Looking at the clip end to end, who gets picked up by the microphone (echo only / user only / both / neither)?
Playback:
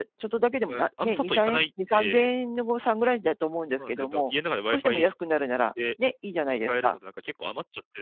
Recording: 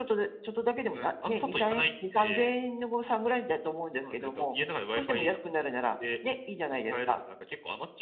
echo only